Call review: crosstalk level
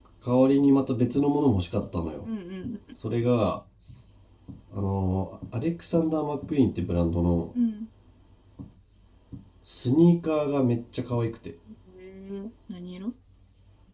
none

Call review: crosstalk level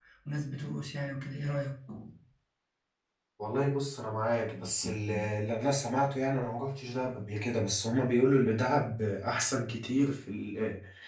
none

